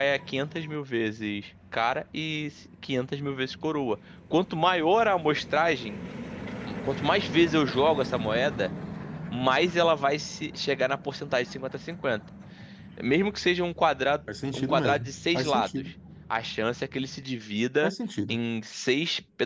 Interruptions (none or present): present